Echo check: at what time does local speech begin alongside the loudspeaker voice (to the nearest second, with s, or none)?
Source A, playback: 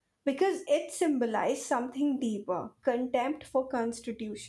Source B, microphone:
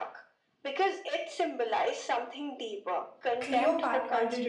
3 s